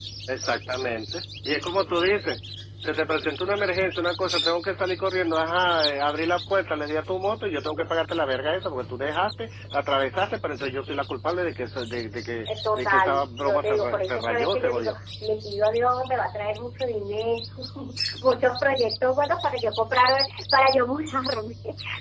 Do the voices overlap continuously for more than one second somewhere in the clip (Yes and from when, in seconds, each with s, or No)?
Yes, from 12.8 s